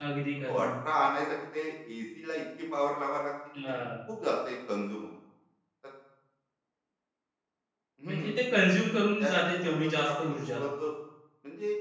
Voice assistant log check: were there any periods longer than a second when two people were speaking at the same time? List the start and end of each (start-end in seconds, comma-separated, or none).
9.2-10.6